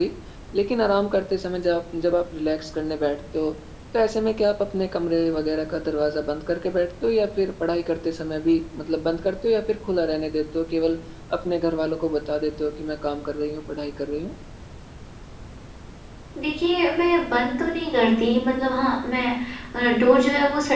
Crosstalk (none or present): none